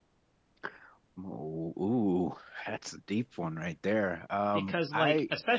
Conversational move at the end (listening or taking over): taking over